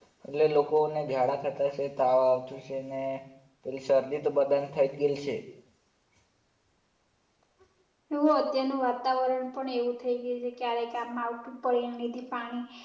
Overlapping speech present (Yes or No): No